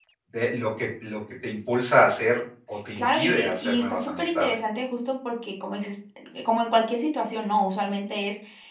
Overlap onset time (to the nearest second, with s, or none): 3 s